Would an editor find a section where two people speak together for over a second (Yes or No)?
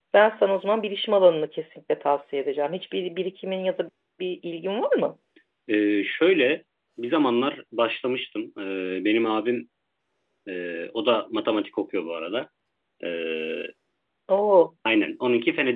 No